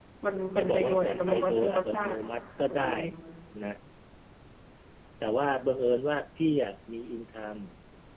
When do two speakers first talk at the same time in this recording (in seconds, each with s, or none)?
0.6 s